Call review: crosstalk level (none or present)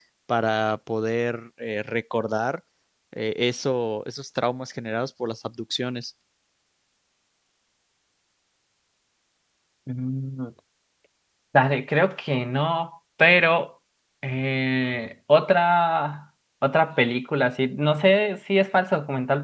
none